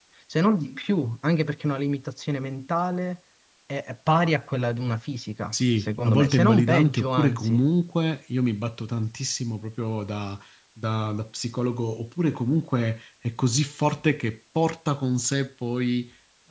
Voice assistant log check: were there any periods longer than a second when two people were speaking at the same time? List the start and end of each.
5.5-7.6

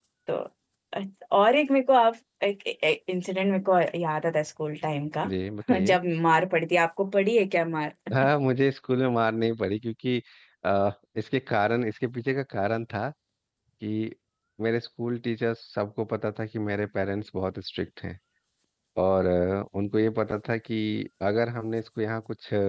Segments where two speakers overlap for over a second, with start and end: none

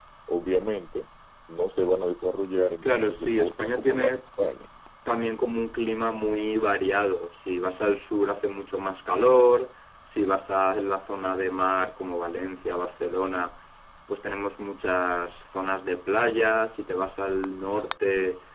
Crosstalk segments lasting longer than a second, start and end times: 2.8-4.1

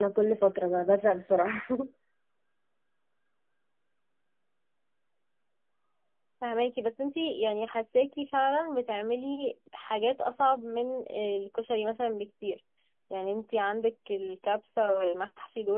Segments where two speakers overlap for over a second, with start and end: none

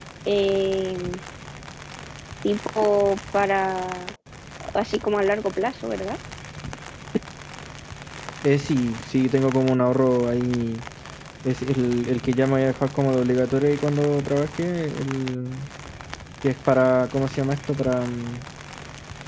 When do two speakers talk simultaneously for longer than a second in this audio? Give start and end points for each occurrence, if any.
none

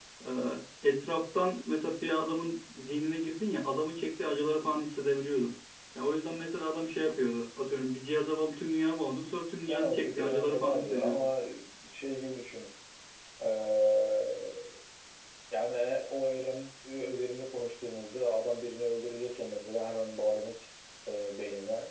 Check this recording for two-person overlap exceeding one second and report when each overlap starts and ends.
9.7-11.3

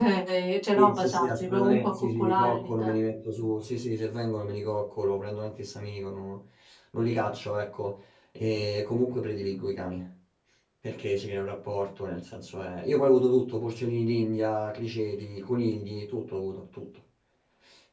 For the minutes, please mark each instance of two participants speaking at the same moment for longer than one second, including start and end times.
0.8-2.9

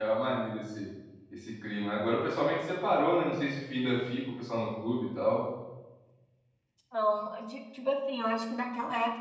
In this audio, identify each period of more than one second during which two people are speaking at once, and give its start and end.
none

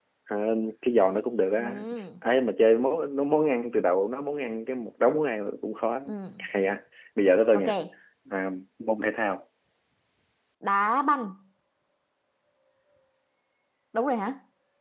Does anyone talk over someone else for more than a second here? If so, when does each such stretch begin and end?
none

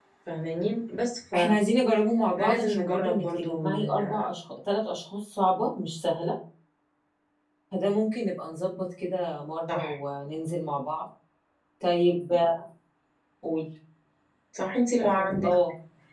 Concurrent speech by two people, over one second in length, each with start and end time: 2.5-4.2

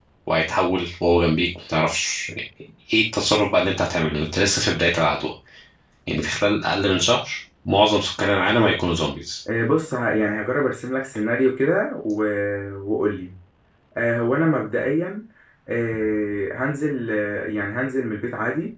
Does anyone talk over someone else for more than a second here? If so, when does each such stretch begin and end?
none

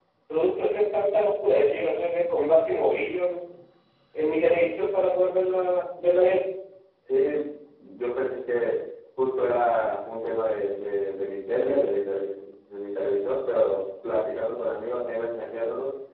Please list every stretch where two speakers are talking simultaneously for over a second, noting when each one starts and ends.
none

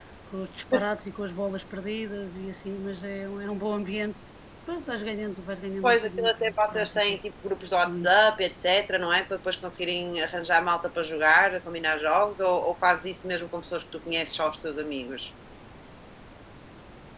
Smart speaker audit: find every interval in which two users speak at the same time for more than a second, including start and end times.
5.8-7.2

